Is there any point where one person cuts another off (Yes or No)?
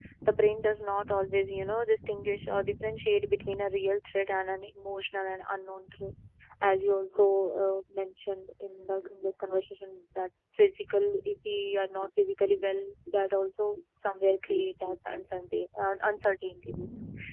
No